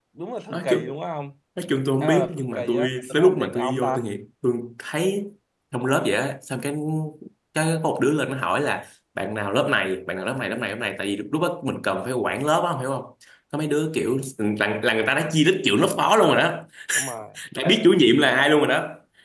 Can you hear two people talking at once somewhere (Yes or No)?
Yes